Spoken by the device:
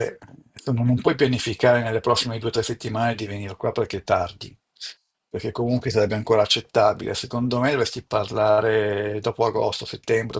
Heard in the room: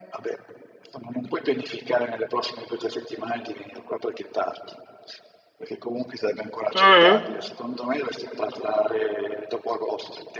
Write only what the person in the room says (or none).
mhm.